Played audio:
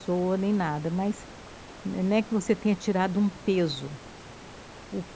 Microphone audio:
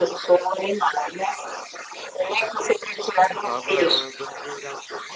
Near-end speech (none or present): present